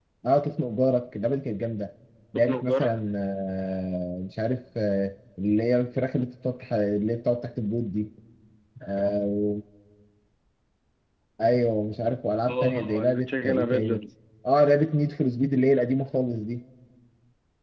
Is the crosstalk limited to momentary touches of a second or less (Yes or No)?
No